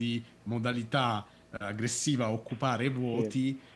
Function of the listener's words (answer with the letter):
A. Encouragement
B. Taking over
A